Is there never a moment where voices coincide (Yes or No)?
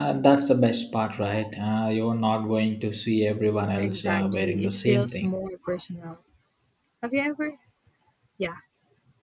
No